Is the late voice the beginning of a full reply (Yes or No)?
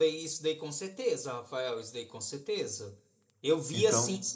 No